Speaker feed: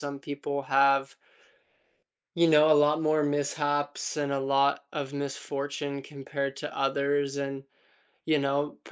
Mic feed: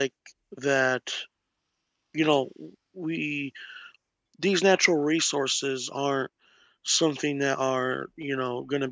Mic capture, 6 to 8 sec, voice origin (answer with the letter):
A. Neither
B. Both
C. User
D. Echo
C